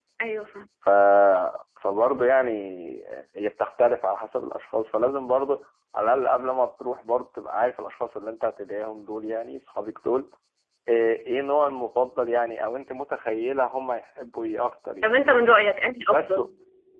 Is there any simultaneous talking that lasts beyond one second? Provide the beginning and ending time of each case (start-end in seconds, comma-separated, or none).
none